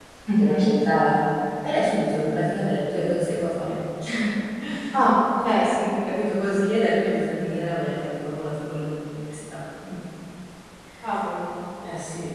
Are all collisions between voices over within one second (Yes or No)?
Yes